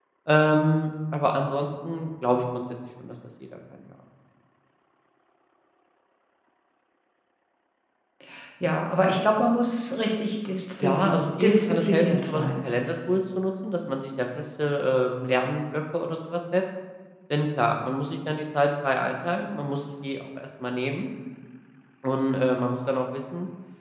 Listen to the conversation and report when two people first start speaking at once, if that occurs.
10.8 s

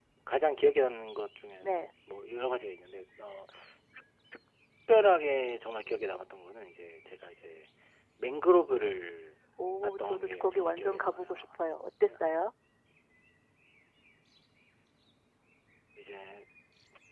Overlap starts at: 9.8 s

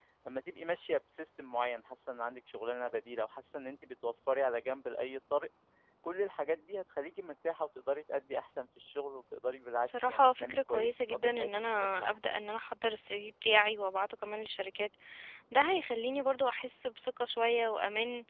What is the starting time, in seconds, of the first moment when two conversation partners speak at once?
9.8 s

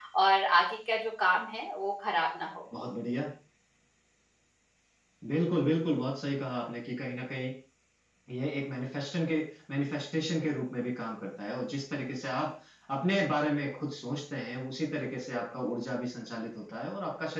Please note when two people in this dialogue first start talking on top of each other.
none

